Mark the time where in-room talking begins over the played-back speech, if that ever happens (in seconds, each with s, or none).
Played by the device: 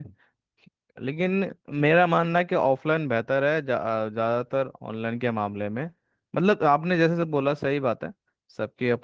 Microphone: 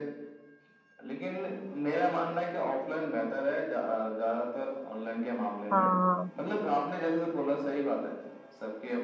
5.7 s